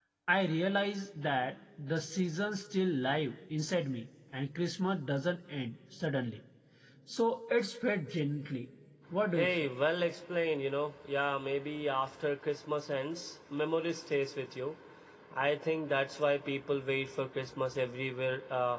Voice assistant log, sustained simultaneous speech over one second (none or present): none